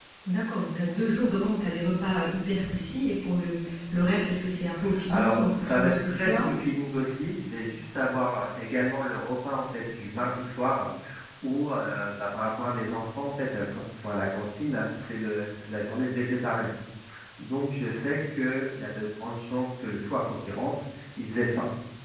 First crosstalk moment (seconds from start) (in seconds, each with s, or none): 5.1 s